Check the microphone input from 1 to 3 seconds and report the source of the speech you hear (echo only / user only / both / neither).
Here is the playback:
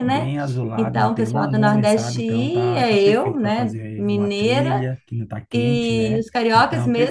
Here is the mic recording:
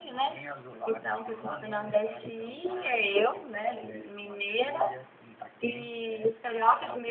echo only